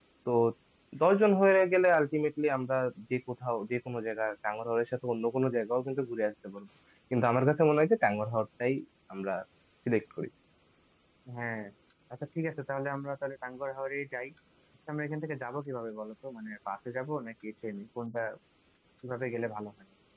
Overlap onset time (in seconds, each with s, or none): none